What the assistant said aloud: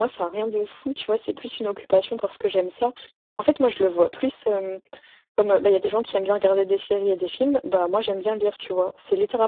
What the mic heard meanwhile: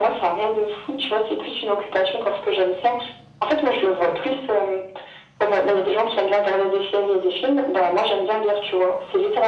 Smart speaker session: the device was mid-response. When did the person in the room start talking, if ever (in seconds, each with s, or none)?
none